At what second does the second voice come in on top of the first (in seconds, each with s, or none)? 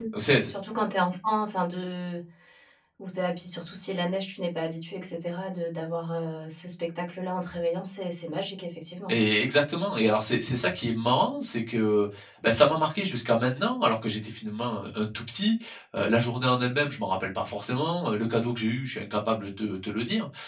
none